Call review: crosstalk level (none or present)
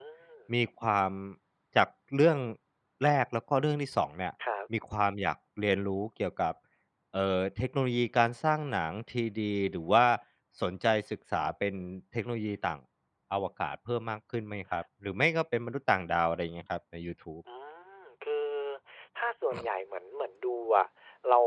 none